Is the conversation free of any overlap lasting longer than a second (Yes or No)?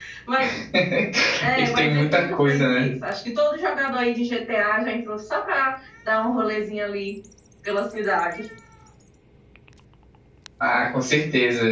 No